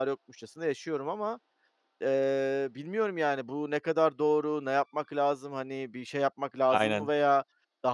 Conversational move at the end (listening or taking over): listening